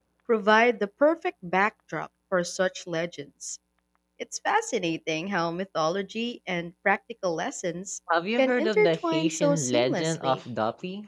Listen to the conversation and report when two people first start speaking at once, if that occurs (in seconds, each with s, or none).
8.4 s